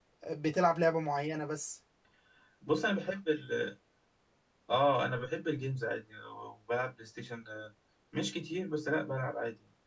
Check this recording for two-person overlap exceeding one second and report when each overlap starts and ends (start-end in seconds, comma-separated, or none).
none